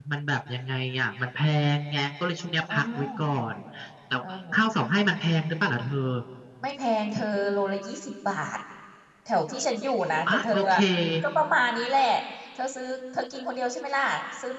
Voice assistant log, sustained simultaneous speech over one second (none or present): none